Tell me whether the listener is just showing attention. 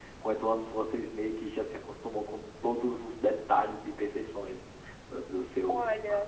No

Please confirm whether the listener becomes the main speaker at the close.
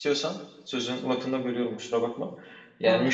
No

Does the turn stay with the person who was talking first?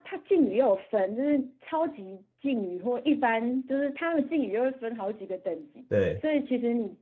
Yes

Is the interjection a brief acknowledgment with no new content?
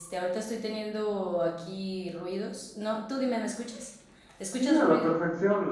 No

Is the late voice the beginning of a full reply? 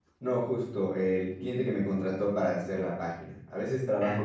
No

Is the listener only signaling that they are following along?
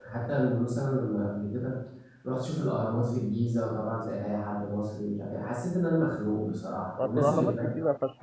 No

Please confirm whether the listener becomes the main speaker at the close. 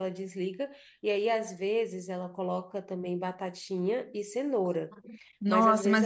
Yes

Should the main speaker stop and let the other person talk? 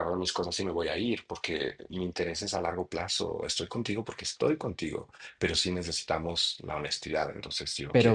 Yes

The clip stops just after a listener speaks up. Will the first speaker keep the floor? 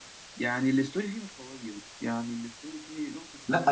No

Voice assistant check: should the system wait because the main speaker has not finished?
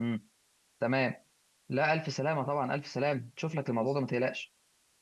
Yes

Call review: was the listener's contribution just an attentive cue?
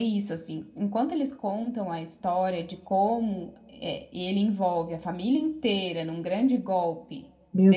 No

